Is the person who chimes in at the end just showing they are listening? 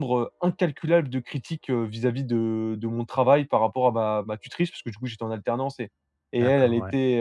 Yes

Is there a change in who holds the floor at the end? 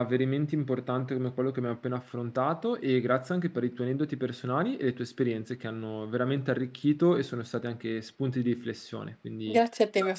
Yes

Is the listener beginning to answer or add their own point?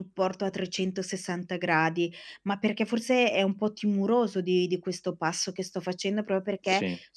No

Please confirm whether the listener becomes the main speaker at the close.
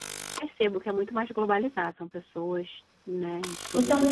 Yes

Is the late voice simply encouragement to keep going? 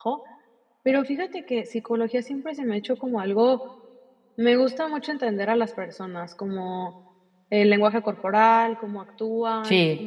Yes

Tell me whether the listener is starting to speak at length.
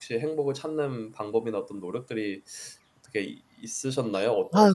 Yes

